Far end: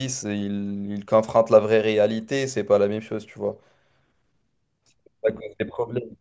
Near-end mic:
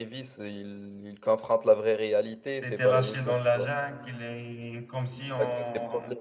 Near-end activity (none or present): present